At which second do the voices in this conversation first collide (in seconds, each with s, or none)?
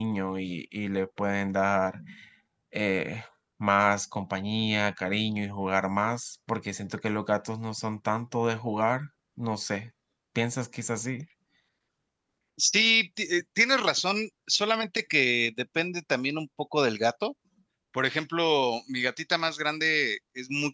none